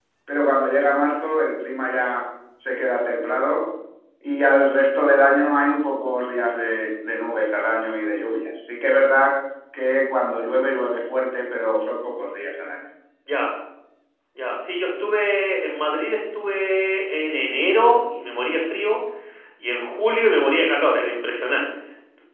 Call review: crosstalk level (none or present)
none